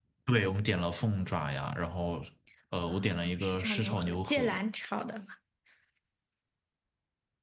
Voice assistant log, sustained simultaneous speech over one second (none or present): present